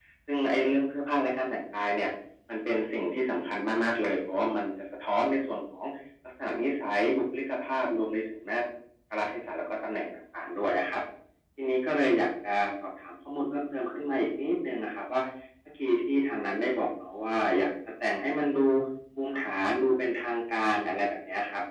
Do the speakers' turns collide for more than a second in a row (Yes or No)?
No